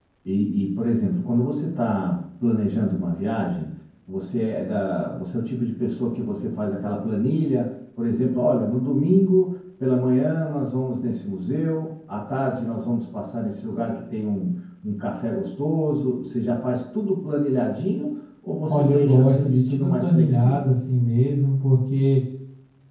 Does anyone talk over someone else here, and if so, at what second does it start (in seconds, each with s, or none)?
18.7 s